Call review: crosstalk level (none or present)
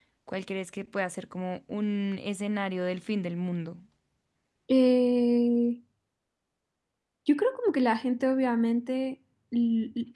none